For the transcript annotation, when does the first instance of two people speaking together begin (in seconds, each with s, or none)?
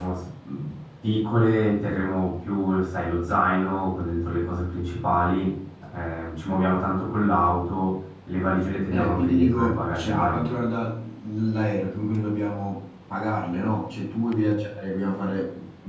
8.9 s